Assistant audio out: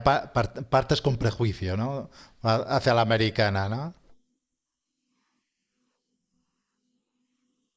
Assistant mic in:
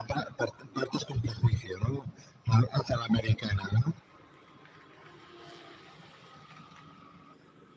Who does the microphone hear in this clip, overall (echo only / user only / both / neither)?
echo only